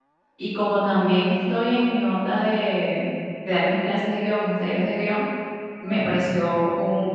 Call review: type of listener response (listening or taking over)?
listening